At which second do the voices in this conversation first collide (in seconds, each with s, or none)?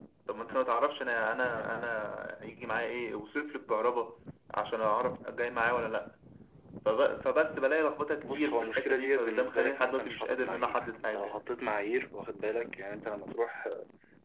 8.2 s